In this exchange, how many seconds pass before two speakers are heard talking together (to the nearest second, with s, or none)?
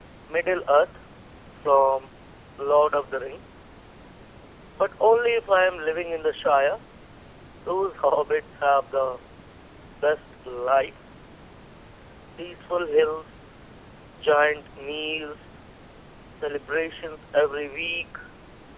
none